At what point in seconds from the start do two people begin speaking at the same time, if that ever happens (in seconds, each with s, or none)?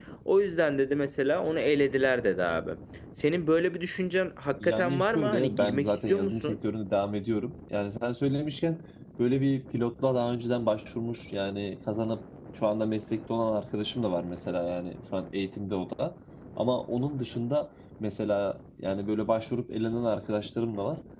4.6 s